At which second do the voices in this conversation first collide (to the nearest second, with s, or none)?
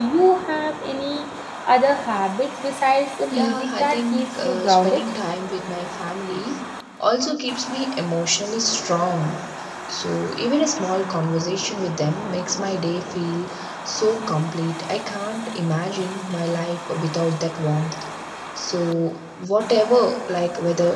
3 s